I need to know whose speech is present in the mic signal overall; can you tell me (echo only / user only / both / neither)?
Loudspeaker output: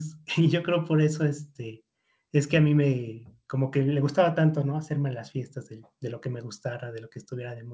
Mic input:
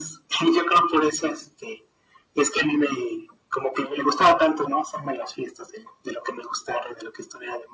echo only